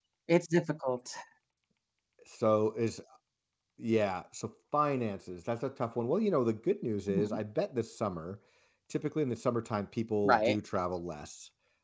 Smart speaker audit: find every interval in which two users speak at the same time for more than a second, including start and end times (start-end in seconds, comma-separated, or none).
none